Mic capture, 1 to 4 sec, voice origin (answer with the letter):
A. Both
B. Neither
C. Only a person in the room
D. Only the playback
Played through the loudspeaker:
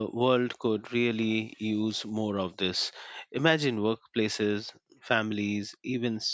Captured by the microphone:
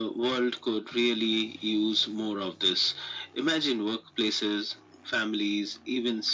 D